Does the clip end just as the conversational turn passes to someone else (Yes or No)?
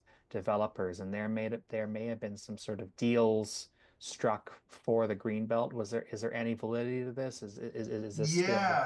Yes